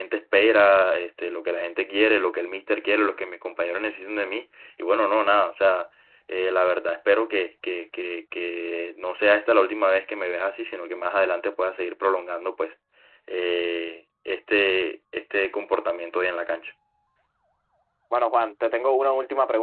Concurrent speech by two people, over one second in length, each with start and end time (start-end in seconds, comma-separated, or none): none